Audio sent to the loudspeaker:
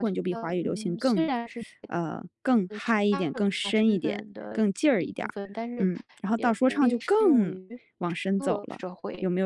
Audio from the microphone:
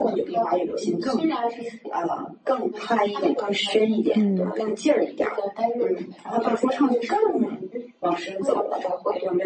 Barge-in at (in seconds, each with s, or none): 4.2 s